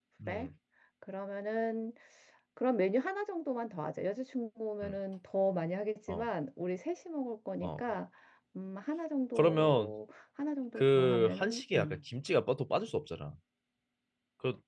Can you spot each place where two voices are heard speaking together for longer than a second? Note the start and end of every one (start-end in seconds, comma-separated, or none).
10.8-12.0